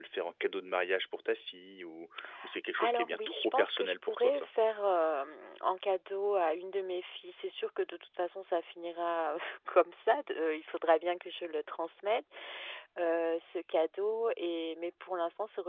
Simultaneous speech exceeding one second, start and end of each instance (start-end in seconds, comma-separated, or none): 2.8-4.5